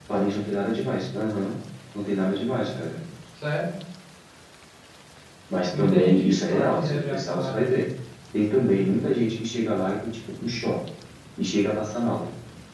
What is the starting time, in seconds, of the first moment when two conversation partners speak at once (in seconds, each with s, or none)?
5.8 s